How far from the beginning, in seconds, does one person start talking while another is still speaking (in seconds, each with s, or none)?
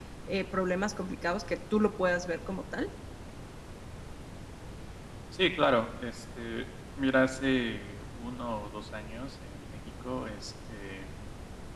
none